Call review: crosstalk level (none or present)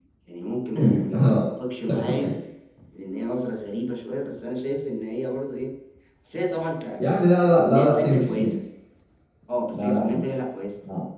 present